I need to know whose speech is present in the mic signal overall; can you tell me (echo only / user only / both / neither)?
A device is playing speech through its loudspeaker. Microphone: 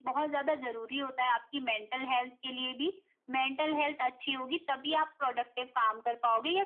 echo only